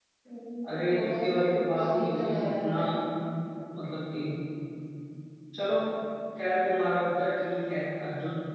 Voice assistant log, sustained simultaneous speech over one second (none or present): present